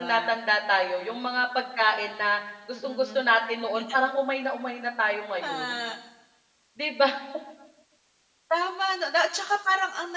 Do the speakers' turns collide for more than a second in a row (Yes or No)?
No